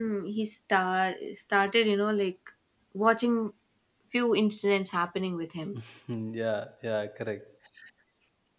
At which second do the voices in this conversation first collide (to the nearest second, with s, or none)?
none